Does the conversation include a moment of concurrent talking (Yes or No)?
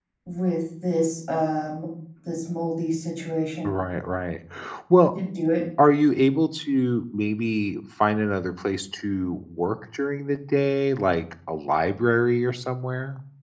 No